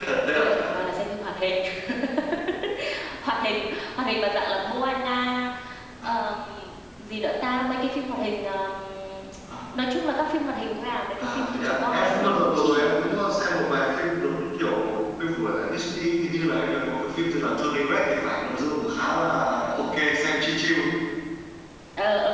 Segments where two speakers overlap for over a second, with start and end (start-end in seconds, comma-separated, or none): 11.2-12.9